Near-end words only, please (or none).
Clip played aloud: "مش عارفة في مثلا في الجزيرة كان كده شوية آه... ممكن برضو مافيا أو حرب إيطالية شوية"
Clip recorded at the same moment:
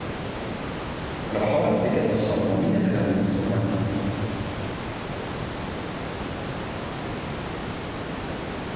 انا بحاول افتكر اصلا هما مين اللي كانوا بيمثلوا معاه في الفيلم